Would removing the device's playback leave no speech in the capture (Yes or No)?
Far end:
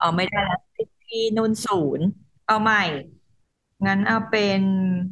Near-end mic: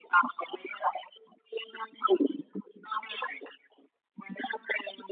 Yes